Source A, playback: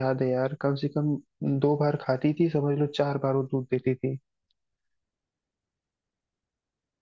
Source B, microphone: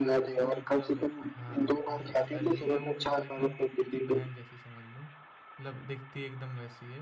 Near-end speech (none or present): present